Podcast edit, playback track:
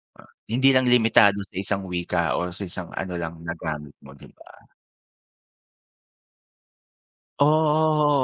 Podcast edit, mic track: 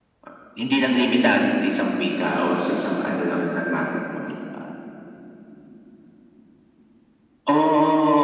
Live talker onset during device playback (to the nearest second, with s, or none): none